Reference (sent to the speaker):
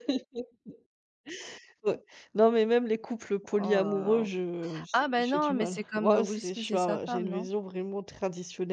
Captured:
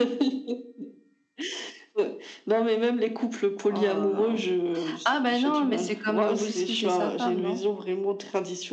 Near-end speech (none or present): none